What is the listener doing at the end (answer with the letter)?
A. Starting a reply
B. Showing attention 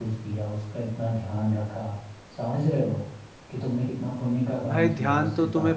A